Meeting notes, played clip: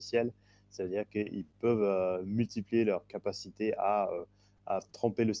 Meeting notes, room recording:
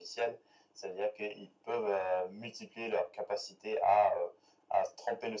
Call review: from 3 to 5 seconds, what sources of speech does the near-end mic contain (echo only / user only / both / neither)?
echo only